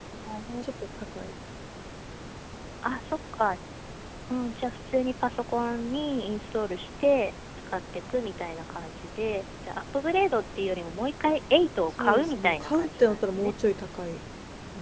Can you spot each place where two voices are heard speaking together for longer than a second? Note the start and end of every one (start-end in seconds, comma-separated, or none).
12.0-13.5